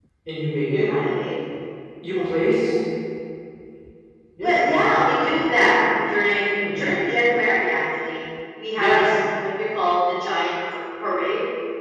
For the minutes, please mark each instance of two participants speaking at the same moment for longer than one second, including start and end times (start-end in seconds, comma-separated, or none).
4.4-5.8